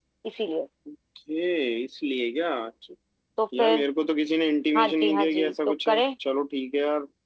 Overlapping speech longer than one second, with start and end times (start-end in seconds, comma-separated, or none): 4.8-6.0